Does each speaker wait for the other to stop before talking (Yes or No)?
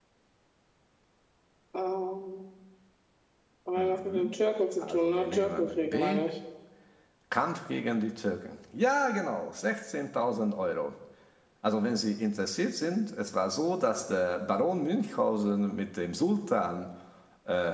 No